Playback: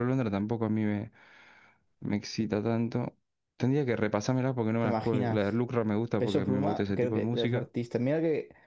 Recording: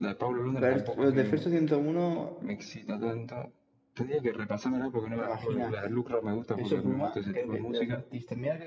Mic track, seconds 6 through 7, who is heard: echo only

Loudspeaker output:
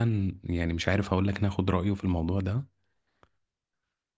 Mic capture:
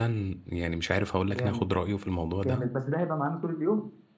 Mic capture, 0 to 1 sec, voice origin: echo only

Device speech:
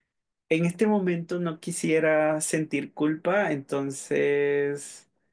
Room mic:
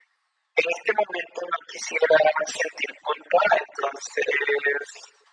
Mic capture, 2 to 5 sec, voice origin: echo only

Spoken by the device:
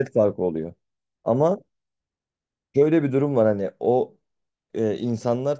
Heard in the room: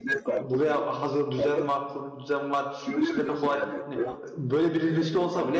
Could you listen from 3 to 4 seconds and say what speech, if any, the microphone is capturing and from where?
both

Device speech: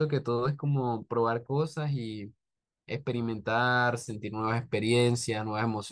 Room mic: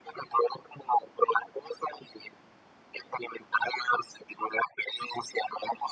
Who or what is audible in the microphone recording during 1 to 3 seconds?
echo only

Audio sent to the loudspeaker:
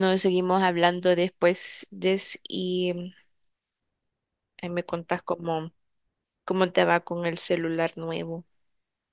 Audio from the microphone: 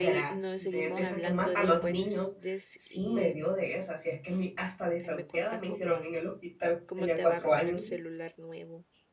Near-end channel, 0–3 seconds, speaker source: both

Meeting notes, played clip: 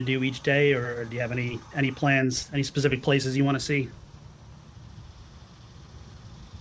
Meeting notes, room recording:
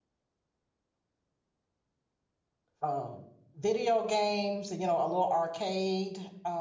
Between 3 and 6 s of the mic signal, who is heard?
user only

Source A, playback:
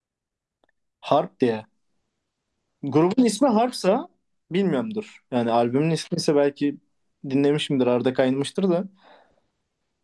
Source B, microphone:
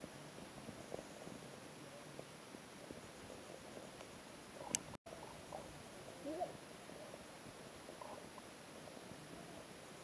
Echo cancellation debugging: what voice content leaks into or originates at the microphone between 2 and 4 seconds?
neither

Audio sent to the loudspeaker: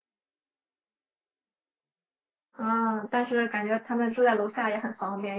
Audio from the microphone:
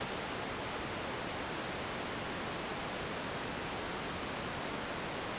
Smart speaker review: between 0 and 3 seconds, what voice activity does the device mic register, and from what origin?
neither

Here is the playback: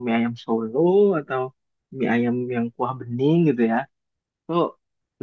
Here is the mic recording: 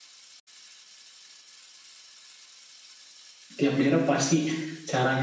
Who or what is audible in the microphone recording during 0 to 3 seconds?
neither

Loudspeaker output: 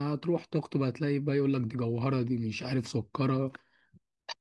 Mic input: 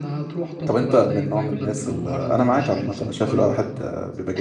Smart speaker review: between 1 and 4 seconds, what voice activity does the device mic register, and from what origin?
both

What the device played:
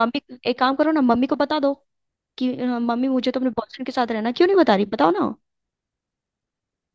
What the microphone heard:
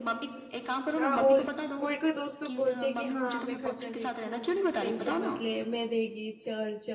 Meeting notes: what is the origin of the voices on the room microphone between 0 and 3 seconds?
both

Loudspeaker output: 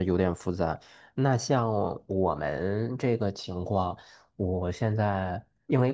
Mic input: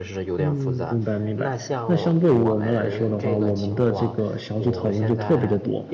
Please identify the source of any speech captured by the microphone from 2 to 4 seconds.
both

